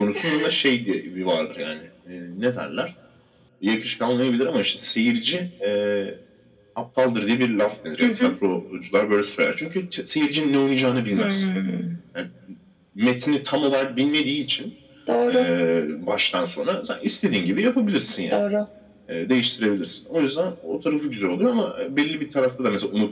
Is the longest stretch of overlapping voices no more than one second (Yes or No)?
Yes